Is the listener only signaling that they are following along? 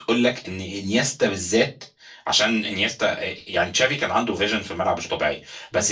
Yes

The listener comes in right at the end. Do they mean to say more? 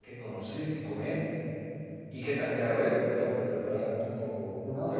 Yes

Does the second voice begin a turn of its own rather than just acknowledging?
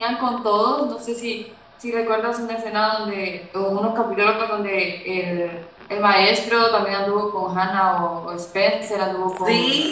Yes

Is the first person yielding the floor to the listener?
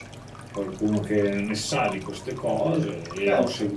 No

